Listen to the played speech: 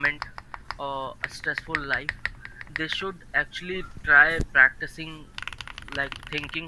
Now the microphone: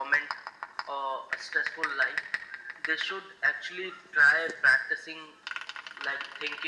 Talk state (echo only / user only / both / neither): echo only